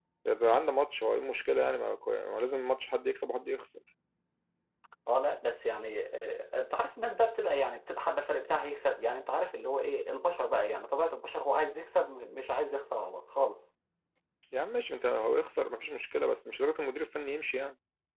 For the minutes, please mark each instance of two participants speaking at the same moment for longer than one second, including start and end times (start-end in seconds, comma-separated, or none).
none